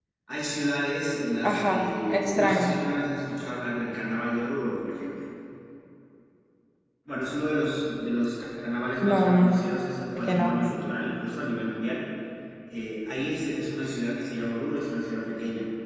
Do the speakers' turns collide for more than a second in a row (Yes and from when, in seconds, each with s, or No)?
Yes, from 1.4 s